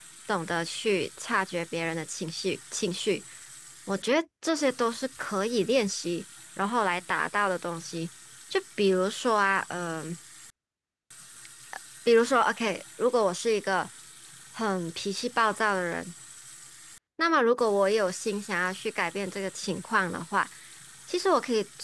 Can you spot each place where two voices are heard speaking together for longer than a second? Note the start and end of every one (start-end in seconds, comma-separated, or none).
none